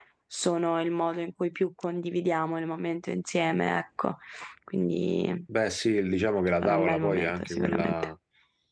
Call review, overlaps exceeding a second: present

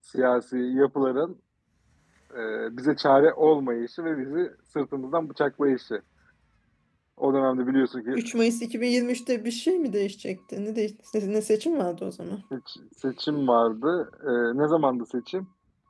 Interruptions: none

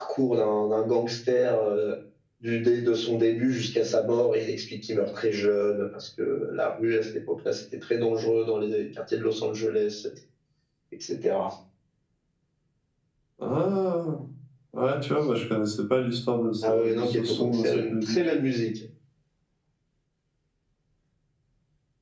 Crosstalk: present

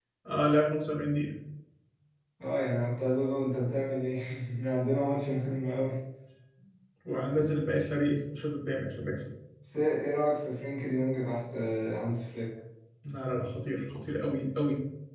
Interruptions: none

